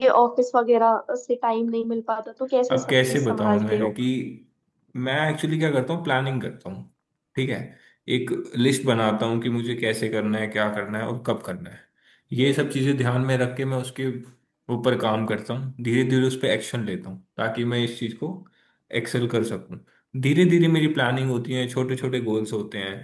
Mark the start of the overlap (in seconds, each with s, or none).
2.7 s